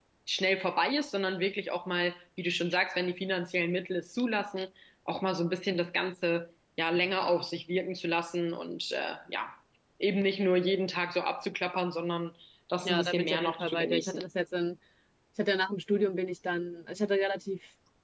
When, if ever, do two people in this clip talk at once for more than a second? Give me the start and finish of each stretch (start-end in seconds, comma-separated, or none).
12.8-14.2